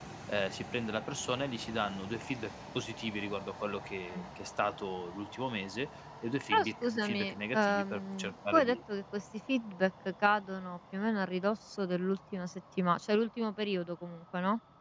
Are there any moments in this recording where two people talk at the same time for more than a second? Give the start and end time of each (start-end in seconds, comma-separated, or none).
6.5-8.8